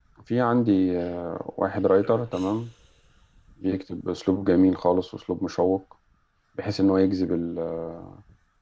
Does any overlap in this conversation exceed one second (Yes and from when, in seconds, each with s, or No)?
No